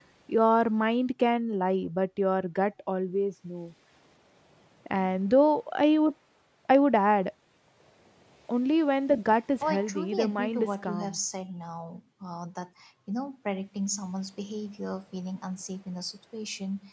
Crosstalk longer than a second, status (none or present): present